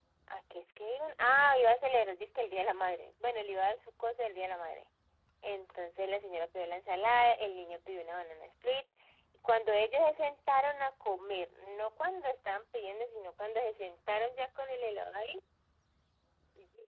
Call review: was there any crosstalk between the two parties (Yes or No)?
No